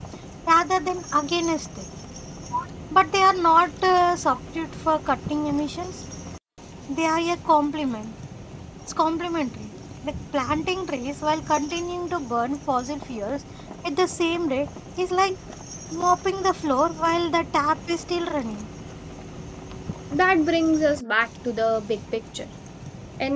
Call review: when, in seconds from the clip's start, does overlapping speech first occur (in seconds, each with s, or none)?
none